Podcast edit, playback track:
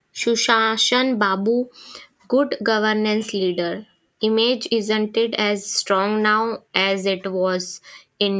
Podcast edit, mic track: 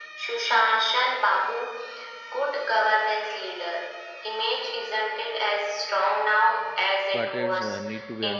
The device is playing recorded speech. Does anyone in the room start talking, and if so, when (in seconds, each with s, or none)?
7.1 s